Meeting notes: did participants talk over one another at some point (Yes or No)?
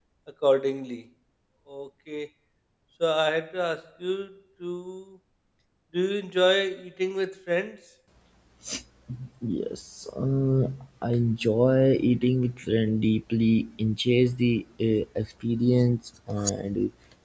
No